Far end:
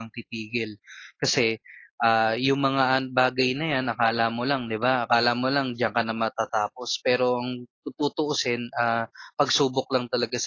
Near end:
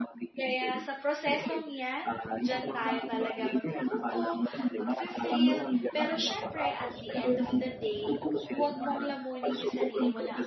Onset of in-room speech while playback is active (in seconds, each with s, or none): 0.4 s